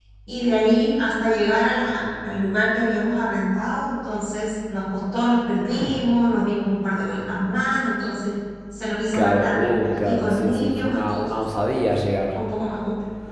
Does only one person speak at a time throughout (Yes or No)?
No